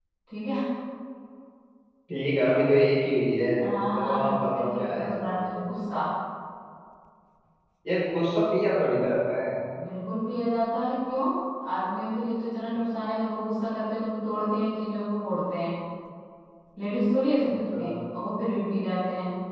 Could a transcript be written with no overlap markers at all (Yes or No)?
No